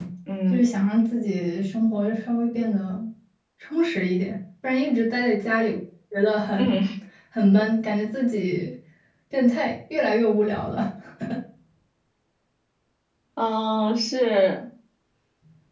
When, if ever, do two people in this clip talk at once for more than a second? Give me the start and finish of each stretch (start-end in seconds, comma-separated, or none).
none